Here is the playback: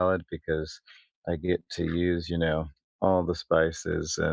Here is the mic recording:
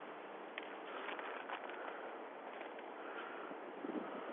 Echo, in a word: none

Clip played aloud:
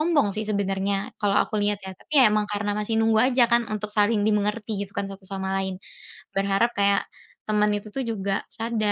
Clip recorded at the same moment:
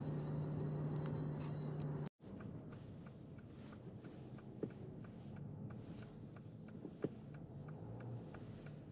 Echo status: none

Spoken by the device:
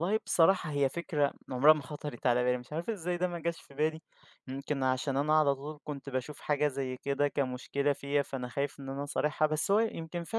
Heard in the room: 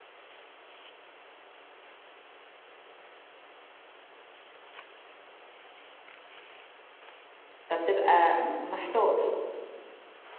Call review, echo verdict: none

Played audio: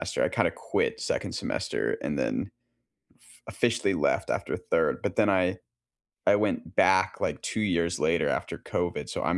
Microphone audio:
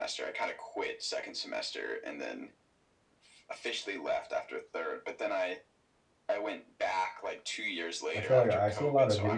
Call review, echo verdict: present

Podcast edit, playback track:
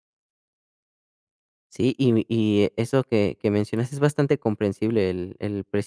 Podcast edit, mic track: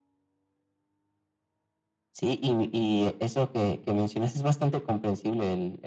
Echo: present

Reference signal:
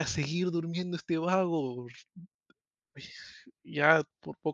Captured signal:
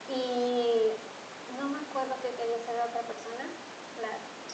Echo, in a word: none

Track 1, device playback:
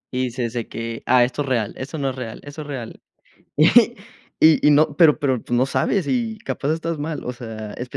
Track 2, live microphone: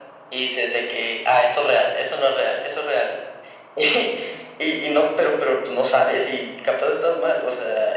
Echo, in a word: present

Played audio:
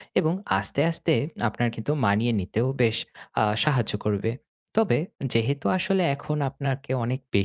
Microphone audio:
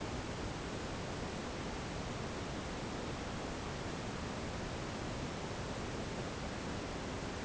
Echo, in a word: none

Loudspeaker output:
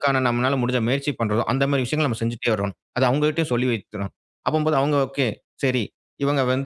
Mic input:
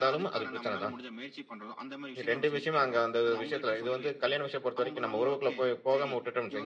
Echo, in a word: present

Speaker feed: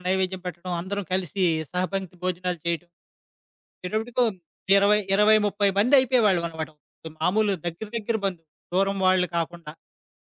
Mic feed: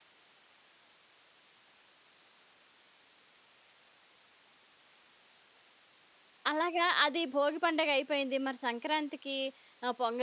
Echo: none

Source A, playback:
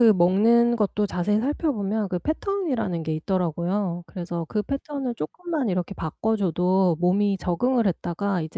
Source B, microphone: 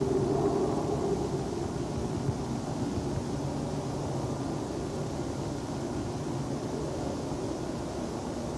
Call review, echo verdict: none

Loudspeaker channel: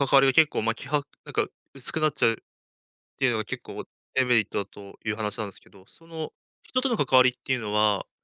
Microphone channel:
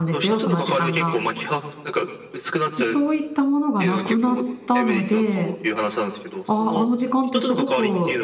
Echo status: present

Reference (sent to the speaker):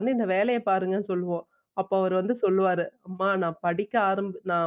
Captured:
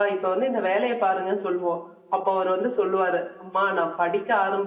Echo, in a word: present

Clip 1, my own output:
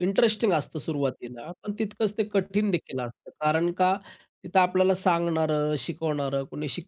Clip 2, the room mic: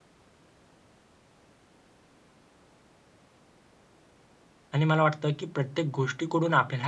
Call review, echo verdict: none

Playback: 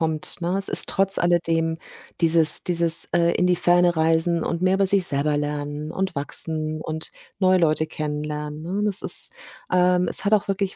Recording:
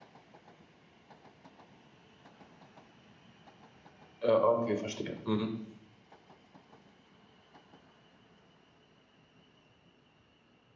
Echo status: none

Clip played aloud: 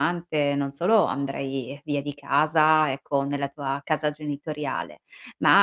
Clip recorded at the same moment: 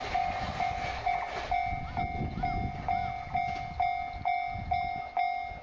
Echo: none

